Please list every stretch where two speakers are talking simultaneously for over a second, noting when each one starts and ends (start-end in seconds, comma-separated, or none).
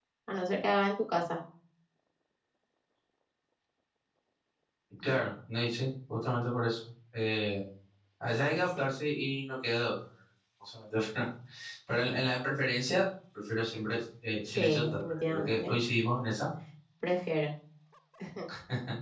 14.5-15.8